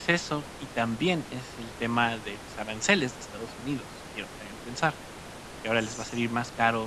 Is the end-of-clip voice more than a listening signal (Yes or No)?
No